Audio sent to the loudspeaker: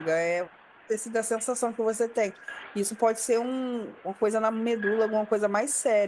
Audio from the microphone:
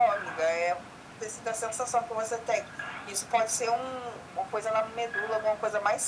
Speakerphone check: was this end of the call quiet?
Yes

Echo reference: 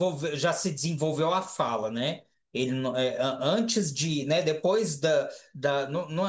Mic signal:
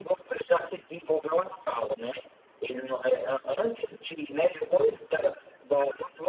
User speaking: No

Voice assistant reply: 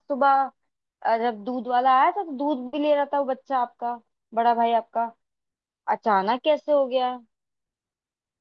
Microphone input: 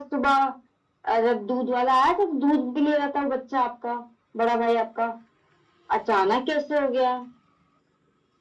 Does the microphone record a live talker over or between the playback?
No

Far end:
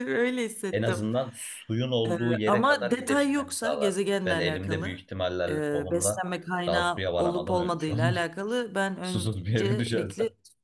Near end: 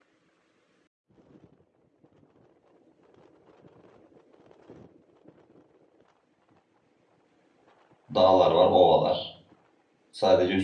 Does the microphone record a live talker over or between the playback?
Yes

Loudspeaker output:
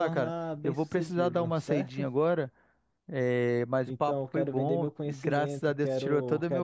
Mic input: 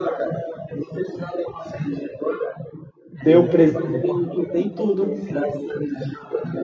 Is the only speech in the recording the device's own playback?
No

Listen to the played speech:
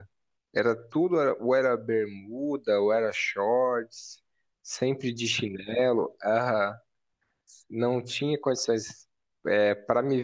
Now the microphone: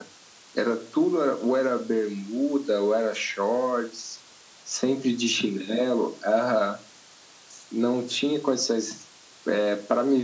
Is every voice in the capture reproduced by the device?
Yes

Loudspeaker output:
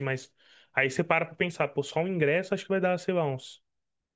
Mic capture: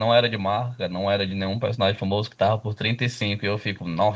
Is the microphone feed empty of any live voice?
No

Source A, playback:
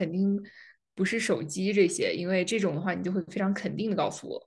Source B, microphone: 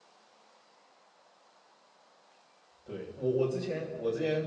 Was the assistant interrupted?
Yes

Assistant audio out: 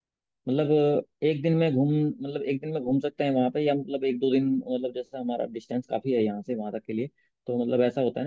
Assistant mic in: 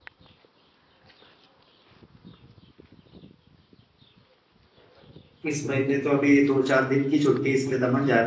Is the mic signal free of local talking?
No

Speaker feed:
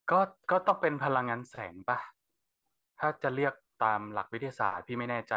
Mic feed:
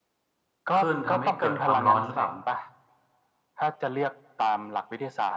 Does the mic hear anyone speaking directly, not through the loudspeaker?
Yes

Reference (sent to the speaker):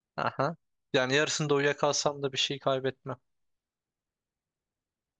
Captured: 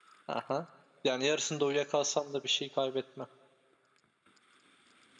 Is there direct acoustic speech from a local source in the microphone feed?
No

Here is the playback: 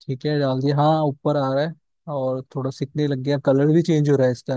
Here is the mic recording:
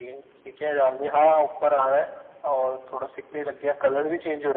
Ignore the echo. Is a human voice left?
No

